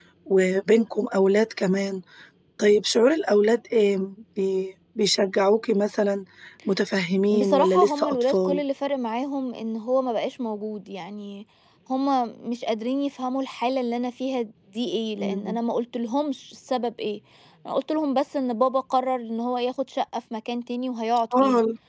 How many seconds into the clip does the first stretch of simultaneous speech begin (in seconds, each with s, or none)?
7.3 s